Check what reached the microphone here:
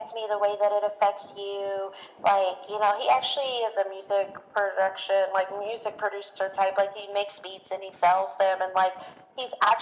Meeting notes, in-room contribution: none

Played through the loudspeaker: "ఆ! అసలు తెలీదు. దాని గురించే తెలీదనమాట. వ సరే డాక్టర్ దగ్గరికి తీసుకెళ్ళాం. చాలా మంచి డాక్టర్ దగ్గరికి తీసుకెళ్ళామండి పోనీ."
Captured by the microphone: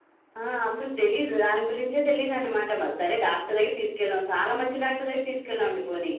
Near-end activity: none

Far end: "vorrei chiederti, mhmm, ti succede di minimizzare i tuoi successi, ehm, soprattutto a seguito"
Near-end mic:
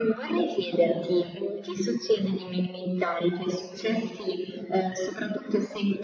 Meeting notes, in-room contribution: none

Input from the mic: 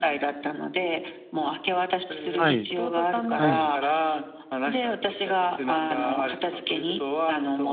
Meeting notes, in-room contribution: present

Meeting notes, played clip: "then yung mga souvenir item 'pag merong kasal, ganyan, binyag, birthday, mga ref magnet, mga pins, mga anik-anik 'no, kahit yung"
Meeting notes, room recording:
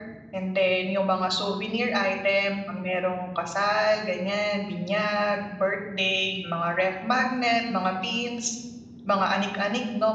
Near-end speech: none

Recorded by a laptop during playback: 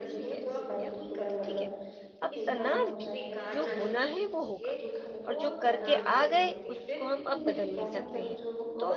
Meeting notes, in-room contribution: present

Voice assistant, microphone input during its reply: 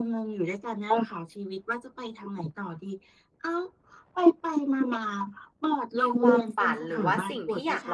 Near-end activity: present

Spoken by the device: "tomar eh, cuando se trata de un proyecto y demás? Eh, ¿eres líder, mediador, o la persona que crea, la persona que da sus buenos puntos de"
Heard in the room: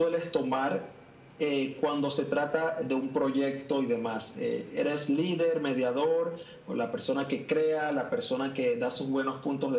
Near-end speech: none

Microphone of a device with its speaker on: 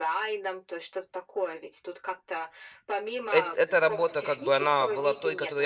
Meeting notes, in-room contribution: present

